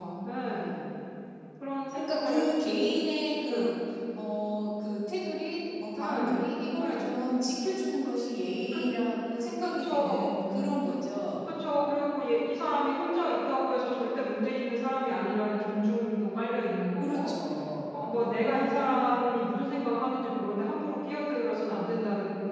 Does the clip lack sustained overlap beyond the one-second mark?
No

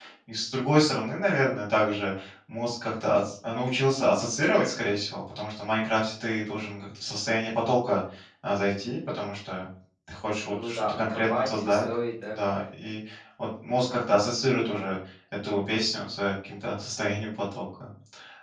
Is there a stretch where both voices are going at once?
Yes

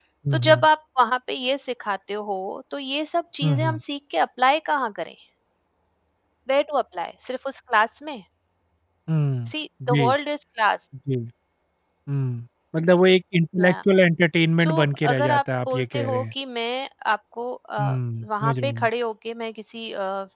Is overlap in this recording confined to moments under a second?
No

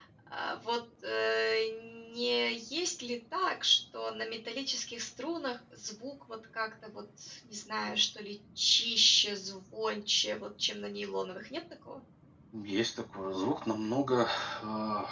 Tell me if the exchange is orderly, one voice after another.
Yes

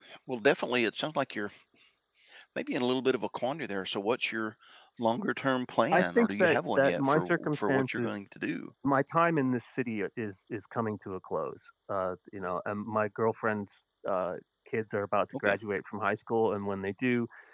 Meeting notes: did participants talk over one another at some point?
Yes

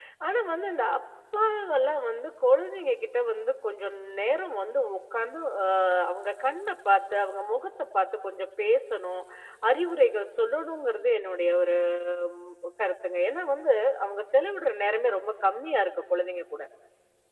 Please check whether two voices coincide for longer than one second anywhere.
No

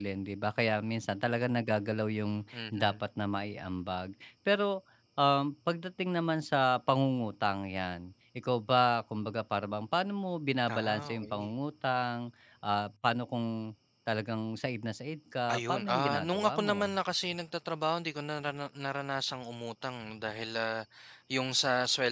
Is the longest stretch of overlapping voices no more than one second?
No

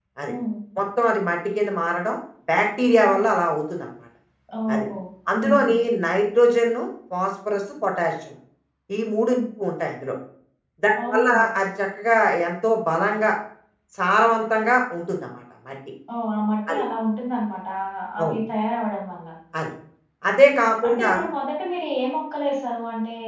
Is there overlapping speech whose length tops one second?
No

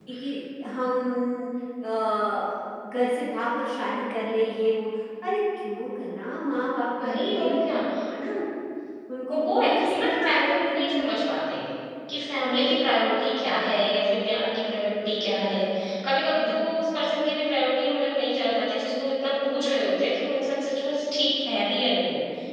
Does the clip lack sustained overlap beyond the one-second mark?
No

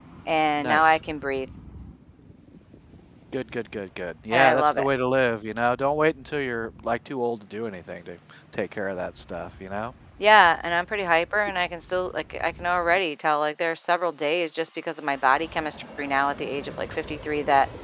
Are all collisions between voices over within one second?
Yes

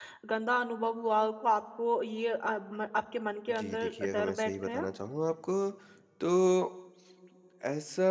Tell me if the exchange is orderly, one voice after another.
No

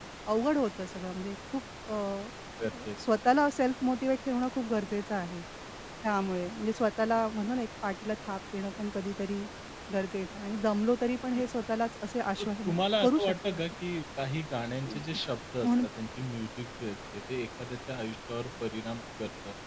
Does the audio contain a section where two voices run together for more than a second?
Yes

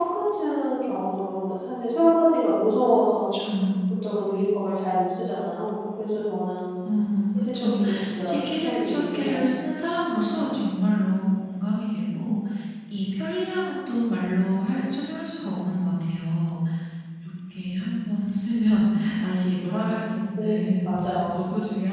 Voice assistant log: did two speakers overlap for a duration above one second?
Yes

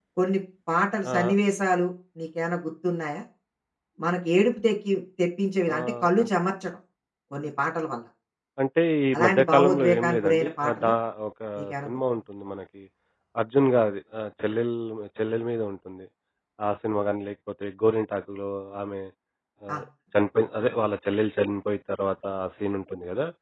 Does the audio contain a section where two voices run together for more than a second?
Yes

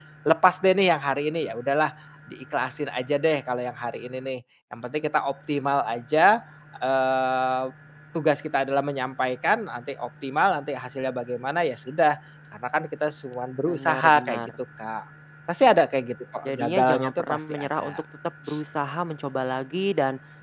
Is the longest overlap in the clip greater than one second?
Yes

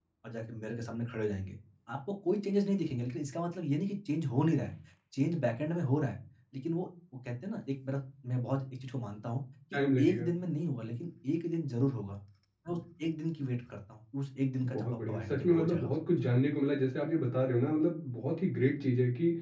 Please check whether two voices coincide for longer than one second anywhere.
Yes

